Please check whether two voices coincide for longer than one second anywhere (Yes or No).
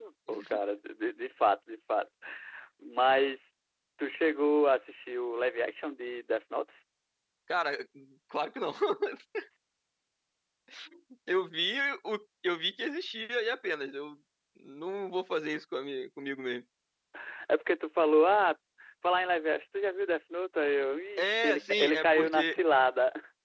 Yes